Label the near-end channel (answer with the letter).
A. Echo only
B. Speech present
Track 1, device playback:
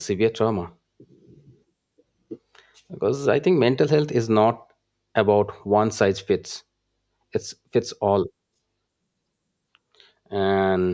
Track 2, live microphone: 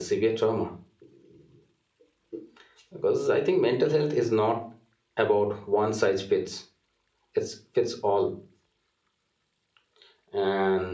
A